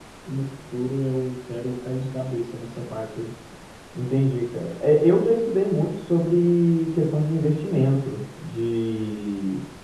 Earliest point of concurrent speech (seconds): none

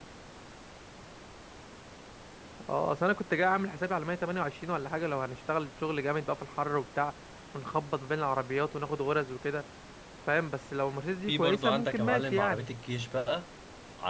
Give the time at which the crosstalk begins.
11.3 s

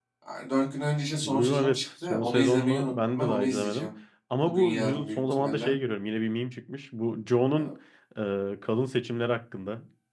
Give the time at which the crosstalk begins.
1.2 s

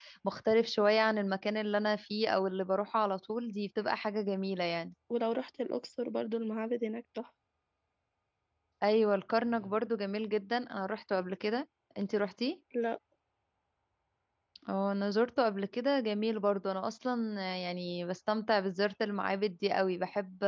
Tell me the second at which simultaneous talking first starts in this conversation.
none

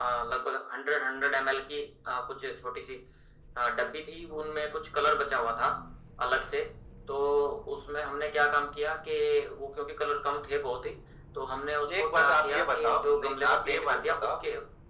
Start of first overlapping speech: 12.0 s

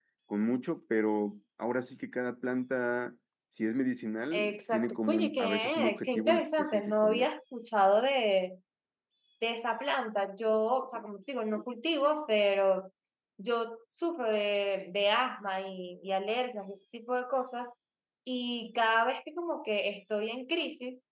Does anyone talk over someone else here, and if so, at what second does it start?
4.3 s

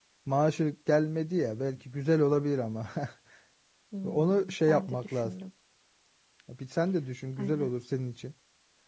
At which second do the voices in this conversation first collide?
4.0 s

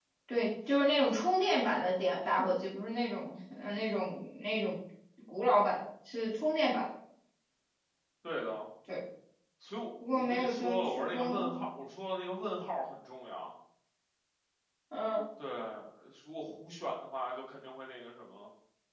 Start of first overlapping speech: 10.2 s

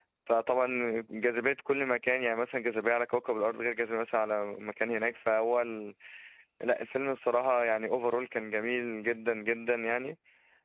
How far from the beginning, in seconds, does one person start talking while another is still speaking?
none

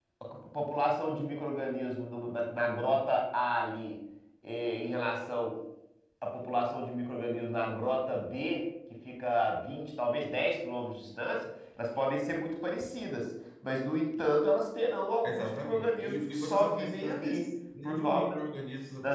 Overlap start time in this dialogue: 15.2 s

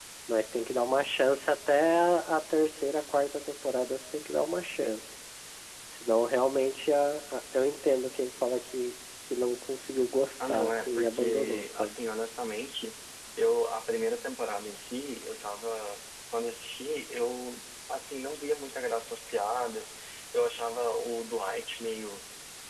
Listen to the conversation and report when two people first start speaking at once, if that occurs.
10.4 s

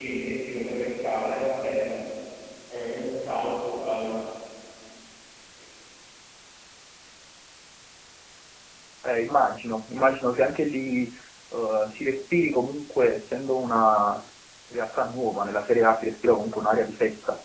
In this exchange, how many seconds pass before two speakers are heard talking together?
none

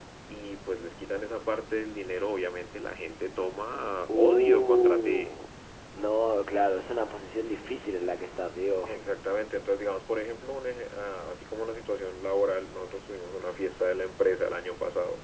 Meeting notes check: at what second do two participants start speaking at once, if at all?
4.1 s

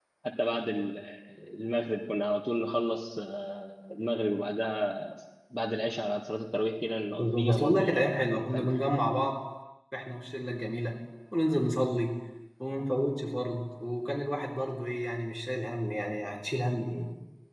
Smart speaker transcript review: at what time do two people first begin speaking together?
7.2 s

